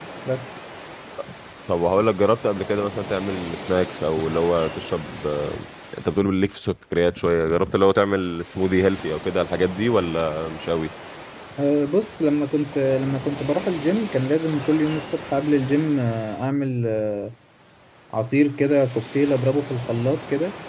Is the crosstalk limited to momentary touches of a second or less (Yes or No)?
Yes